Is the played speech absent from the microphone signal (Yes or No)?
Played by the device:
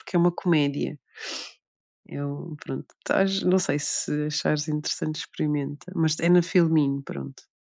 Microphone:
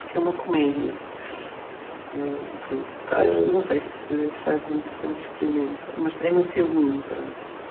No